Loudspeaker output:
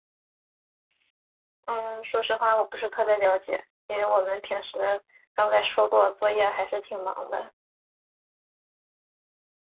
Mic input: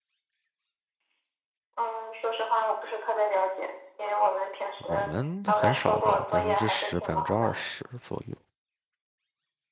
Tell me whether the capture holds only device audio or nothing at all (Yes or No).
No